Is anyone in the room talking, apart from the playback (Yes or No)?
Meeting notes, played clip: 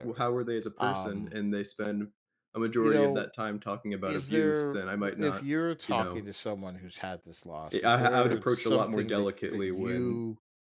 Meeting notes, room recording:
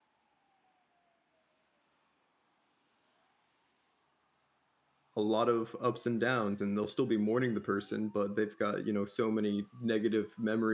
Yes